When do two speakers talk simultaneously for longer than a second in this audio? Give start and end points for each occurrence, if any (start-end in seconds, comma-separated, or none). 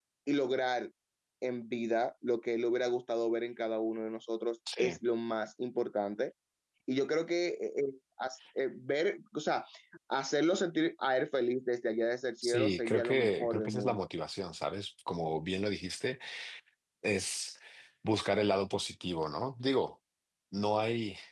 12.4-14.1